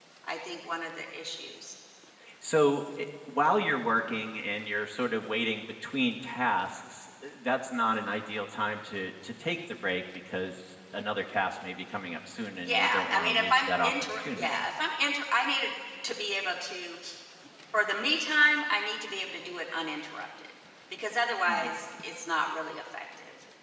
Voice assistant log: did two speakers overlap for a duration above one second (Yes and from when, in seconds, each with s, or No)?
Yes, from 12.7 s